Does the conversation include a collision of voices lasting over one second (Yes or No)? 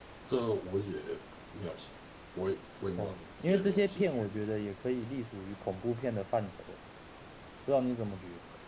Yes